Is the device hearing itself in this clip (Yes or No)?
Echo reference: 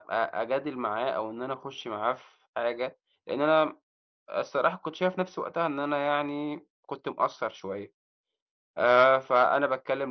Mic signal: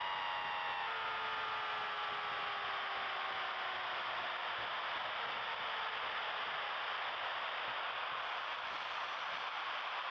No